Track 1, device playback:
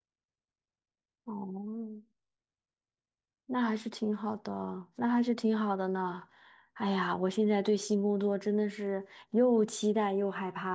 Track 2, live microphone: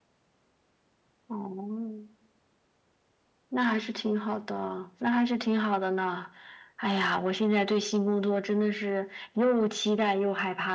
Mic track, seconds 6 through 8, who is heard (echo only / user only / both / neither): echo only